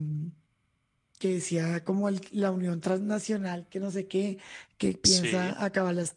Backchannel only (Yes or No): Yes